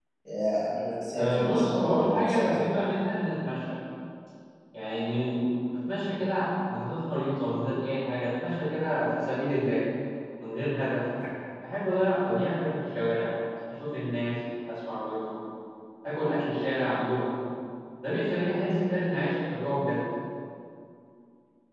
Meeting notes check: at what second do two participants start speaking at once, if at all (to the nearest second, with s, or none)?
1 s